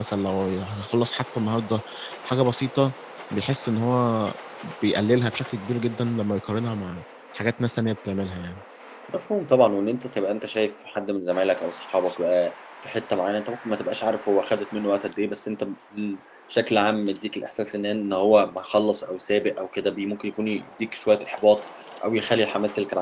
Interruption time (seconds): none

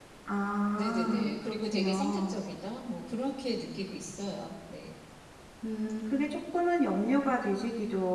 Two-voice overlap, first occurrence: 0.7 s

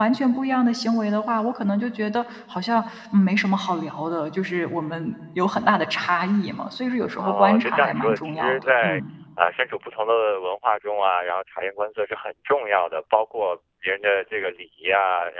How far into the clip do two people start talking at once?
7.2 s

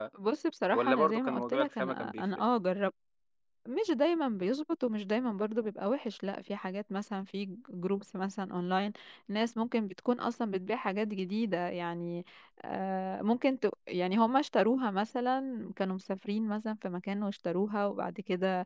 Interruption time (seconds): 0.7 s

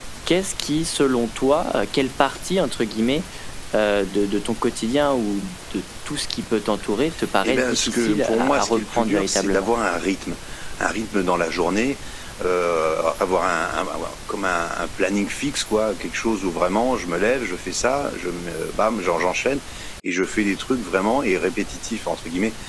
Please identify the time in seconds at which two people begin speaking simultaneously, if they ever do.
7.4 s

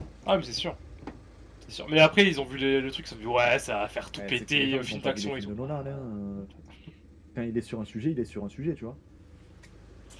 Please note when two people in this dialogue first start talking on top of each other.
4.2 s

